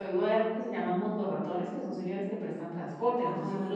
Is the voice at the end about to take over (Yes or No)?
Yes